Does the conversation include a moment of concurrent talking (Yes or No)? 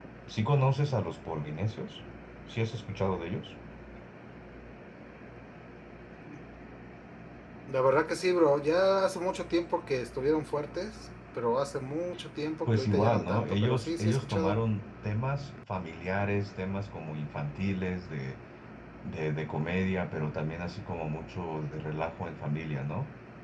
Yes